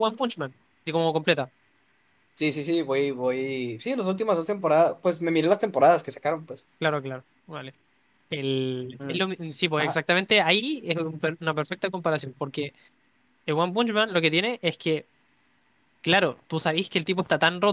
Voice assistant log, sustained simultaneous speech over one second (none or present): none